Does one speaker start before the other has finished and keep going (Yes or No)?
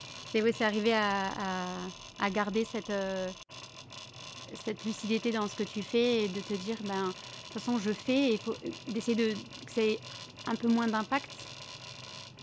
No